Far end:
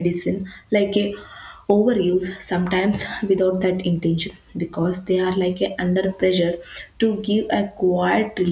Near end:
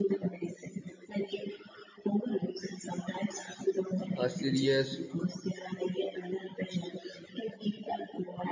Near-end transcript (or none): uh, serious